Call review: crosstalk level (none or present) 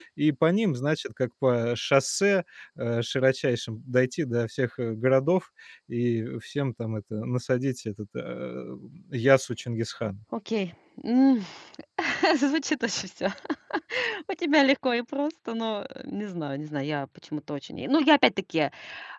none